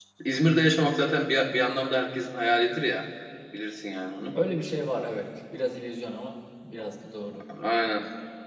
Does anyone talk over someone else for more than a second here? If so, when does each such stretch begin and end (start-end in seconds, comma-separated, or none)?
none